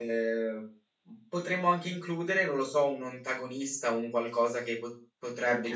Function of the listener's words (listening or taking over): listening